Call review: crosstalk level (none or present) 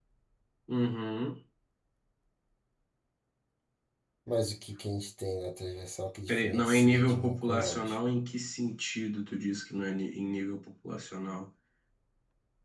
present